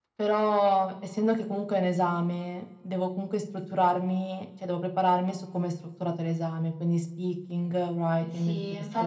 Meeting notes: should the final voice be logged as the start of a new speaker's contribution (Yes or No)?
Yes